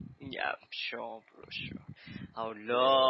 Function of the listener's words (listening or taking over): listening